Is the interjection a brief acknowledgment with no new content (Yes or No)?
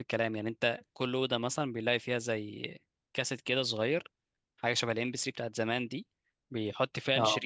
Yes